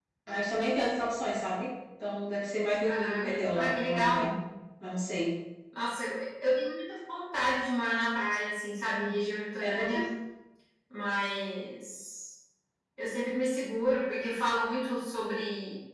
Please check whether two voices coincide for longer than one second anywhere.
Yes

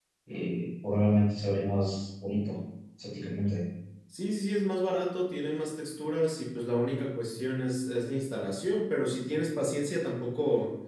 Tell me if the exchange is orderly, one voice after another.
Yes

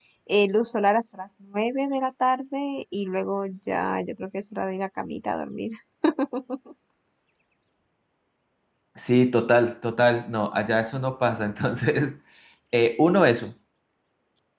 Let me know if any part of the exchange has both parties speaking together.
No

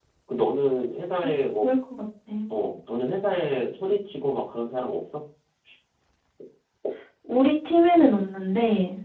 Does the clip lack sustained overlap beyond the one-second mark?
Yes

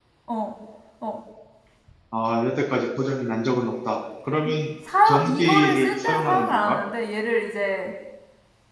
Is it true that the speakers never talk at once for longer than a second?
No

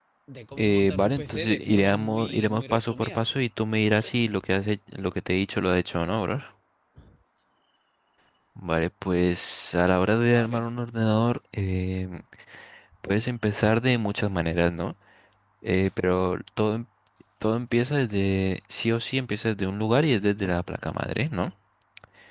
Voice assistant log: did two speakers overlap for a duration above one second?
Yes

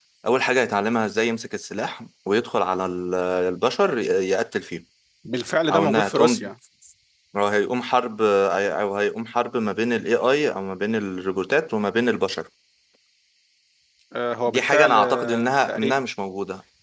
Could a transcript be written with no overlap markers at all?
No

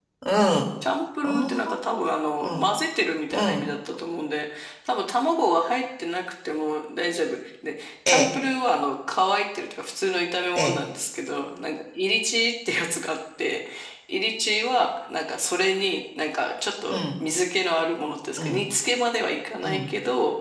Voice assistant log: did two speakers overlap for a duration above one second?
No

